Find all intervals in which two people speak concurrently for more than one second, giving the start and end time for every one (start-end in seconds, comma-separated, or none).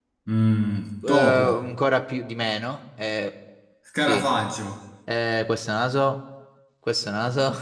none